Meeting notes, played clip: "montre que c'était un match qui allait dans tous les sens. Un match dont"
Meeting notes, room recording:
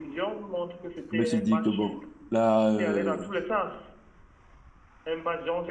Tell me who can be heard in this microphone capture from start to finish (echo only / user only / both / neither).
both